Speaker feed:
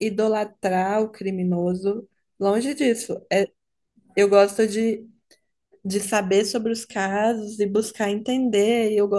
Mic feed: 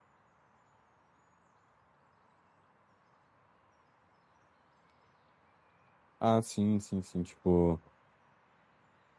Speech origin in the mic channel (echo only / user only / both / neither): user only